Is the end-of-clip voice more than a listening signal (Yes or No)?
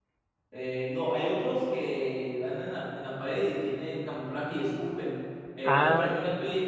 No